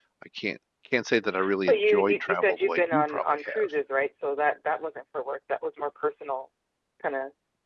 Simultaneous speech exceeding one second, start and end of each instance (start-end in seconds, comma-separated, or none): 1.7-3.7